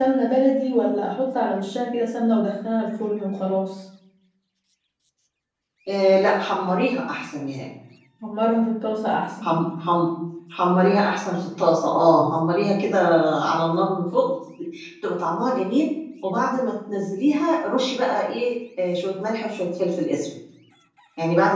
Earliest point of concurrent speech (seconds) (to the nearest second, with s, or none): none